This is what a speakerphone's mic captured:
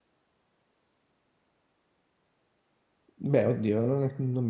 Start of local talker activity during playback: 3.1 s

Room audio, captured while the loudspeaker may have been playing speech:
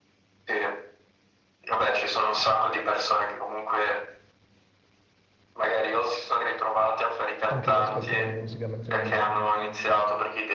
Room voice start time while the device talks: 7.5 s

